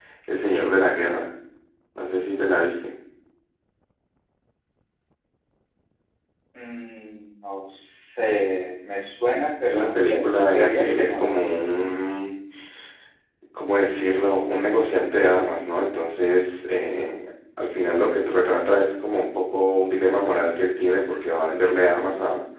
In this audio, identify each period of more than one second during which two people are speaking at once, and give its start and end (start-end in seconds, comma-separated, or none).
9.6-11.2